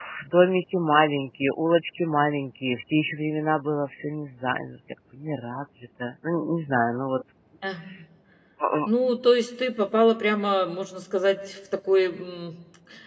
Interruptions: none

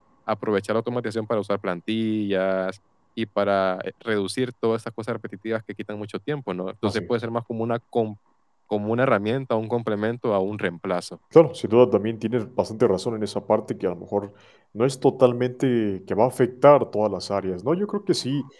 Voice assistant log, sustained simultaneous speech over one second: none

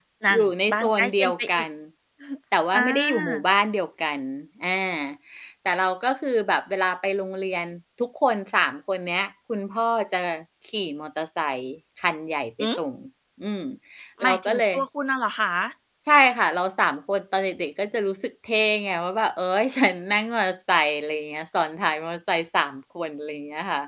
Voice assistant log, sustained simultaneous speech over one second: present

